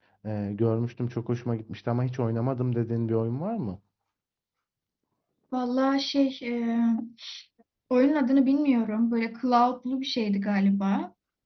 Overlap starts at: none

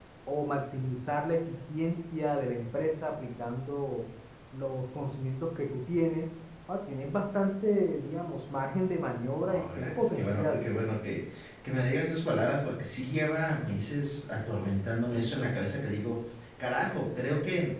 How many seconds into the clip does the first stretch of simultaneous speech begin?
9.5 s

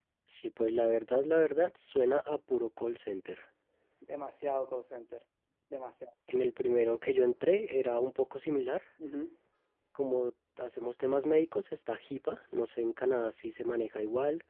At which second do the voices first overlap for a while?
none

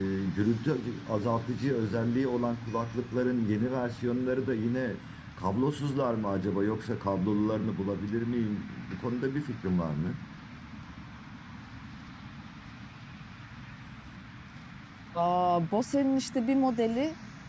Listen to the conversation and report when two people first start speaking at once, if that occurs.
none

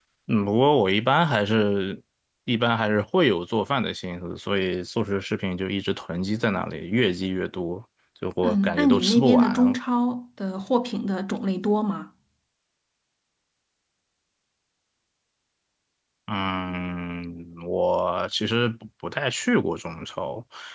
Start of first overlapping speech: 8.4 s

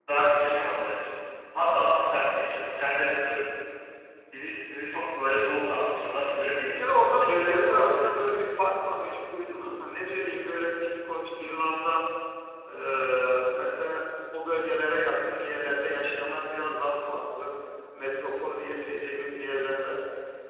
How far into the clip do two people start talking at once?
6.7 s

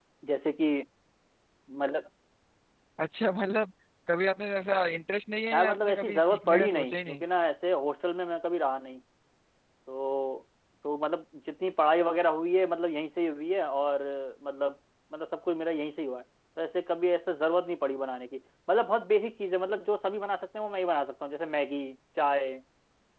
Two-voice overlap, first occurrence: 5.5 s

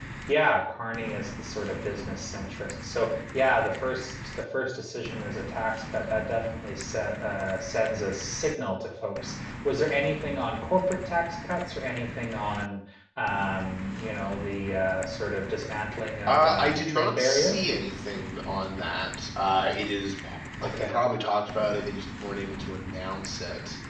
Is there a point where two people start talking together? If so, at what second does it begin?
16.3 s

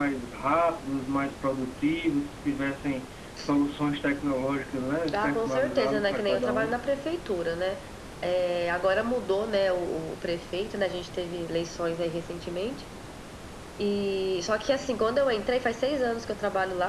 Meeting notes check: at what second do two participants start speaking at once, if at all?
5.1 s

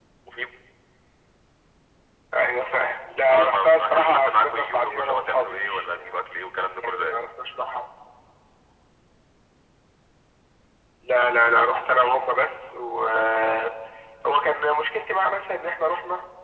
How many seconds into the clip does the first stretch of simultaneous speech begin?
3.3 s

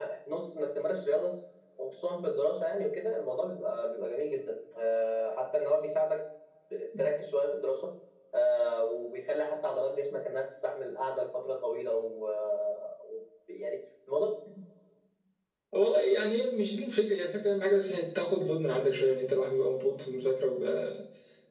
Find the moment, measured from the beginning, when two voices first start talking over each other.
none

